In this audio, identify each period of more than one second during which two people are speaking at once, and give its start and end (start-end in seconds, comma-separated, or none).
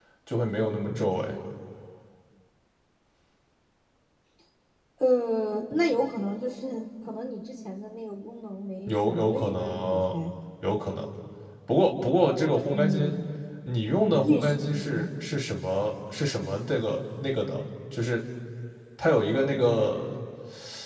8.9-10.1, 13.8-15.1